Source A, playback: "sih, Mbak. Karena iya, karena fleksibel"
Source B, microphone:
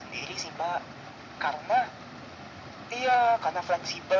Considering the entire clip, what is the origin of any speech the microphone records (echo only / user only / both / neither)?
echo only